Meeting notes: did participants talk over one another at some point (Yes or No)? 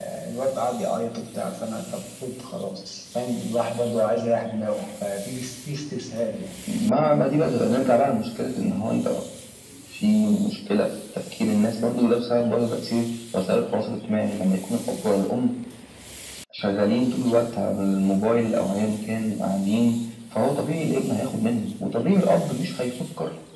No